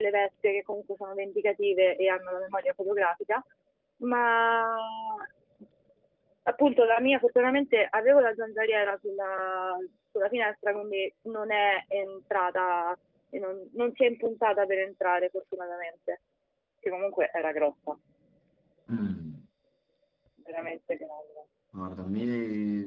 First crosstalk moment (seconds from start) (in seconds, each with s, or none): none